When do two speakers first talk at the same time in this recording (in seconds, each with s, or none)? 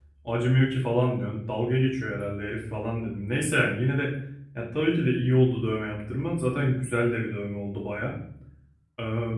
none